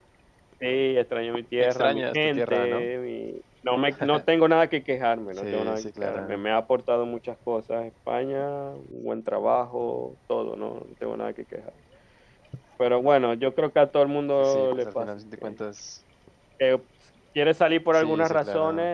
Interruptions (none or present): present